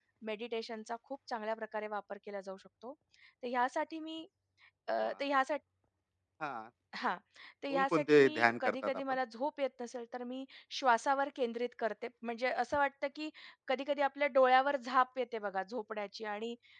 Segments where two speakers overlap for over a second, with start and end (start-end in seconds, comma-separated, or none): 7.7-9.0